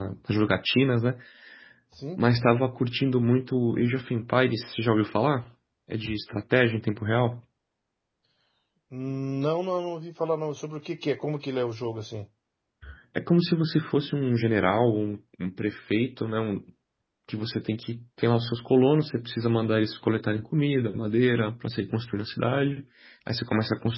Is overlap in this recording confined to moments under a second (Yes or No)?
Yes